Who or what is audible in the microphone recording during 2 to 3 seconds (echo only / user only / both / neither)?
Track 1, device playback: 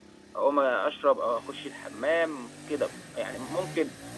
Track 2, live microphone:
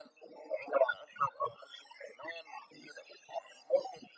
echo only